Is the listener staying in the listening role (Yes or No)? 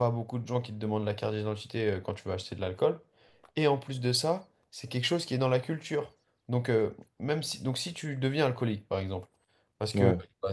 Yes